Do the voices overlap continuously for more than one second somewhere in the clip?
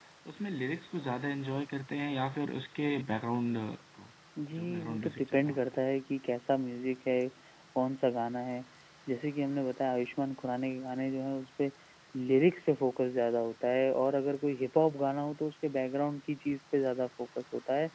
Yes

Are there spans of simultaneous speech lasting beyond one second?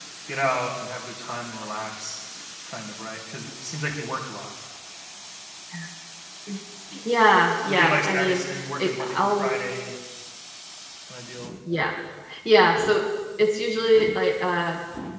Yes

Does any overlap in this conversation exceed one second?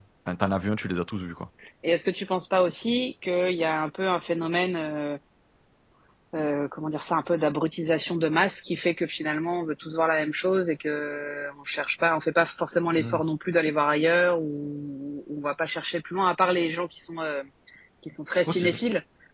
No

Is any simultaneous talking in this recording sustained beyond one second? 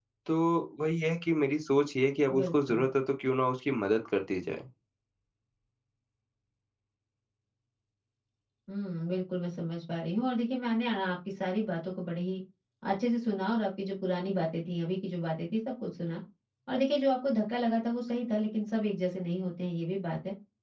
No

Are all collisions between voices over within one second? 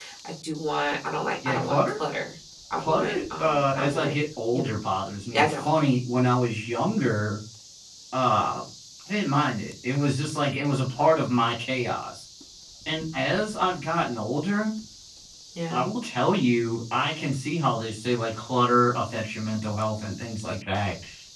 No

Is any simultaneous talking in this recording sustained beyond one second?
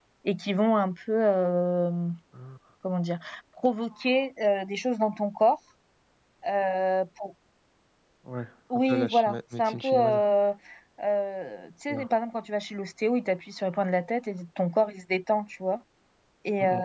Yes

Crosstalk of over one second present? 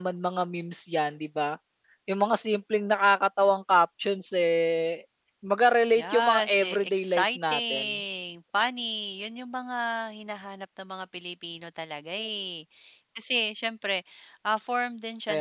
Yes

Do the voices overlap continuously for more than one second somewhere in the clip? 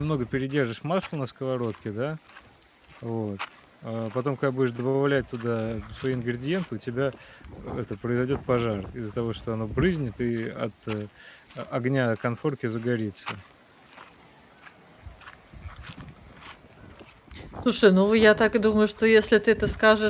No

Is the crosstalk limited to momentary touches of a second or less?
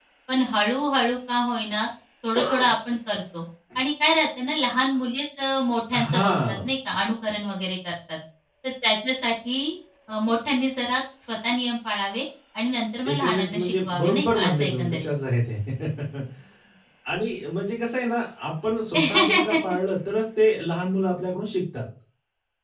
No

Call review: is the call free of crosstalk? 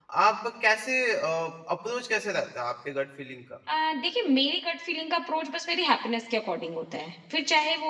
Yes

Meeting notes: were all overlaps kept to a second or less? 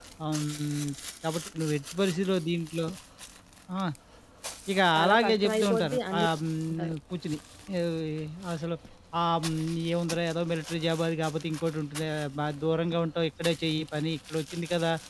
No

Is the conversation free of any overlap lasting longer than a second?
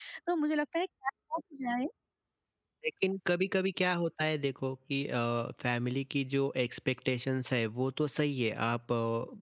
Yes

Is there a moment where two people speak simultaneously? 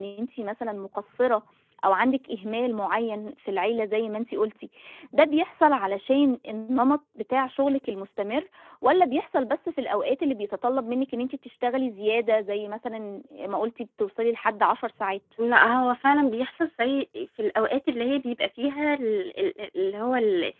No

